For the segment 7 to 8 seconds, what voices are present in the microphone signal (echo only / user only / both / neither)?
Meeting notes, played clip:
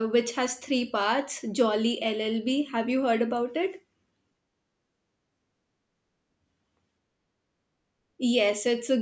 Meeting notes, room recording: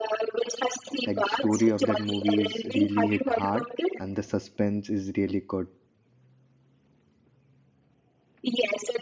neither